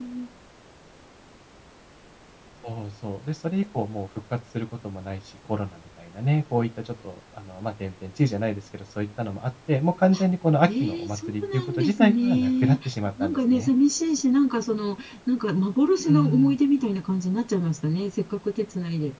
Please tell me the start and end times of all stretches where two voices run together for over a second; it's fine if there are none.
10.7-12.8

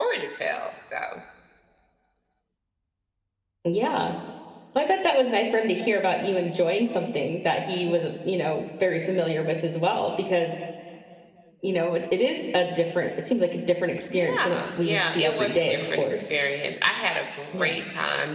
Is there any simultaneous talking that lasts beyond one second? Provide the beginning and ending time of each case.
14.1-16.2

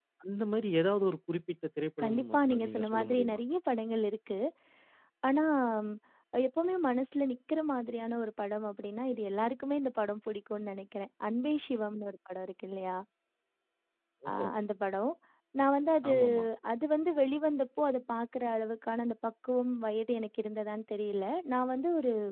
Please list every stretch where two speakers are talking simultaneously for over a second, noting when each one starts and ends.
2.0-3.4

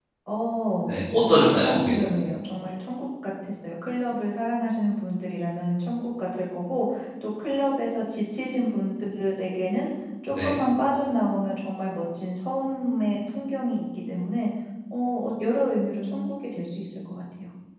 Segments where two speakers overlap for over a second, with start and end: 0.9-2.1

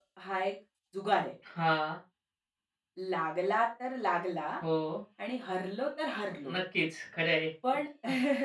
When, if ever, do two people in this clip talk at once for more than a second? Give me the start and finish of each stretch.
none

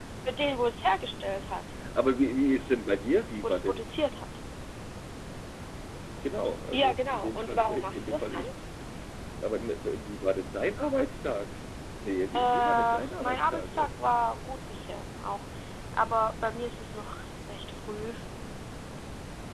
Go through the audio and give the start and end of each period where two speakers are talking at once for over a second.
6.7-8.5, 12.3-14.1

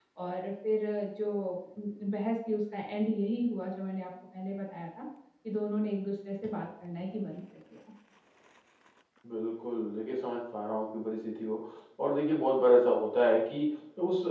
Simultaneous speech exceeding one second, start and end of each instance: none

